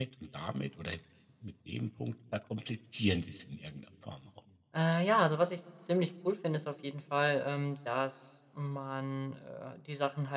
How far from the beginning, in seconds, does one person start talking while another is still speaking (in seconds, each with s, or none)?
none